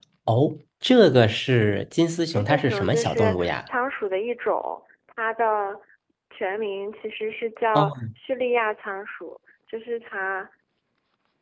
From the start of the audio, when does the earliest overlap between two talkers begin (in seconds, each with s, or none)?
2.3 s